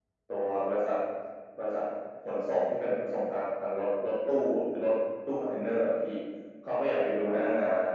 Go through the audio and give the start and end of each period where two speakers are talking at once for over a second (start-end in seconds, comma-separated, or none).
none